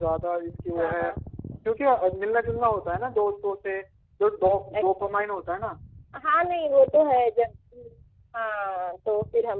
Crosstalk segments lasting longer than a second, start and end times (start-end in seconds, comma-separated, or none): none